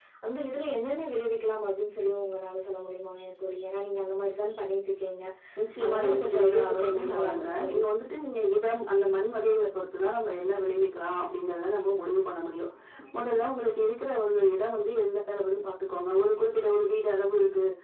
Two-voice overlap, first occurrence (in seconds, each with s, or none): 5.8 s